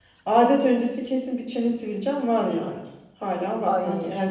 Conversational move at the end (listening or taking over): listening